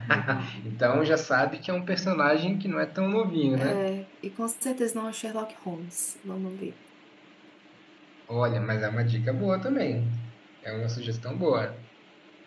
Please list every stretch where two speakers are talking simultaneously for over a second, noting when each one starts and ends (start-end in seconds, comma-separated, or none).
none